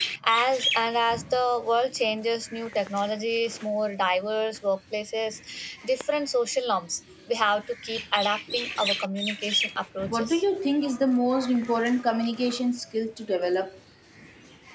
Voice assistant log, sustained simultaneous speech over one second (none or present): none